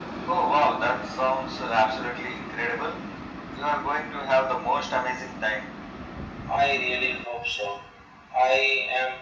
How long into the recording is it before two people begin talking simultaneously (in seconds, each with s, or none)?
none